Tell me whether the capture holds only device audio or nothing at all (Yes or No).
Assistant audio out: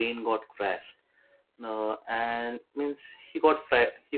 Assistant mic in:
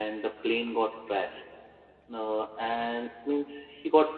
Yes